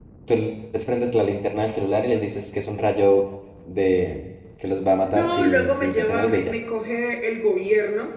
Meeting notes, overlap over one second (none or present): present